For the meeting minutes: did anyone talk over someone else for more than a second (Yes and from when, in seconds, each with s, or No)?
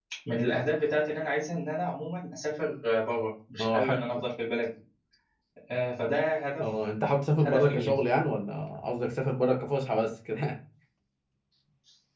No